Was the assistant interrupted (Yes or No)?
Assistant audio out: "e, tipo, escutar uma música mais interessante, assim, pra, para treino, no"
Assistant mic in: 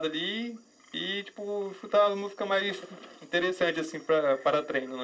No